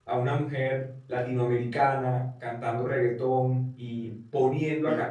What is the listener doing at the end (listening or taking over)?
listening